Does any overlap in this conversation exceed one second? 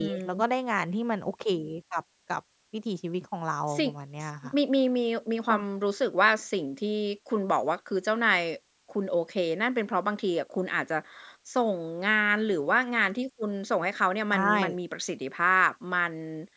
No

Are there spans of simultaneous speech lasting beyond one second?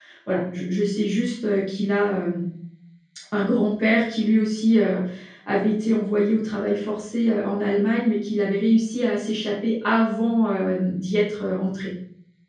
No

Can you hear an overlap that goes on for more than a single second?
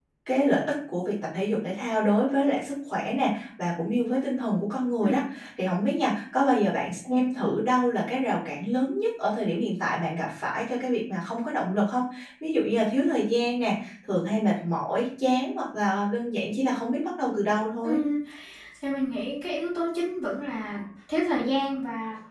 No

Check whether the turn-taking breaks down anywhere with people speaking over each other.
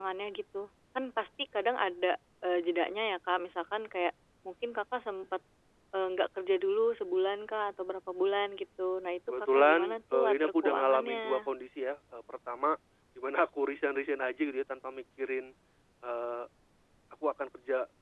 Yes, from 9.5 s

